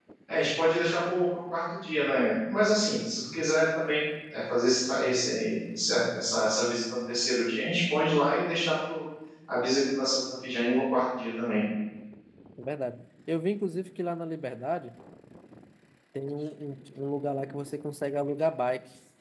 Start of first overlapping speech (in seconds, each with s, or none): none